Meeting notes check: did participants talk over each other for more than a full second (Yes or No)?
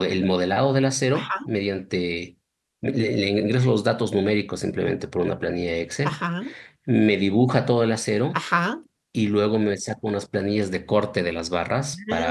No